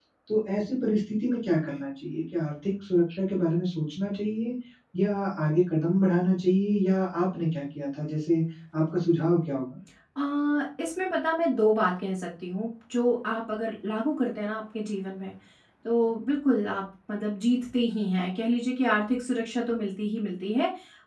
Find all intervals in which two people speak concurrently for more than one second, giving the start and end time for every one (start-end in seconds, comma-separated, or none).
none